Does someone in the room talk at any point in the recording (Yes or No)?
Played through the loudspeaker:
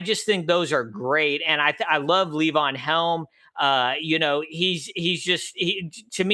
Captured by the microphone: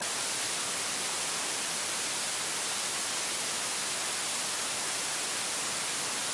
No